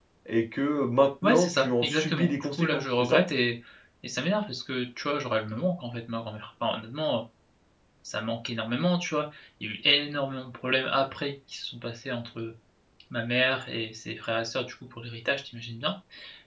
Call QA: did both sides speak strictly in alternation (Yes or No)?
No